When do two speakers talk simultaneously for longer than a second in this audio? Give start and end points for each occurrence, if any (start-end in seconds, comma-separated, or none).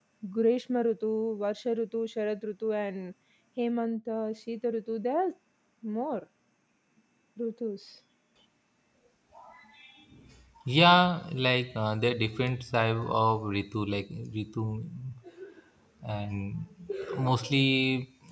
none